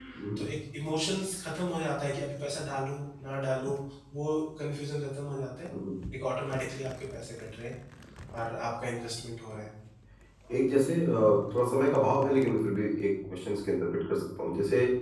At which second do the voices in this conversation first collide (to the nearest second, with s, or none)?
none